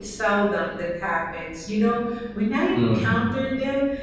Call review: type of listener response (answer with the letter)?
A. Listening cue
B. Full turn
A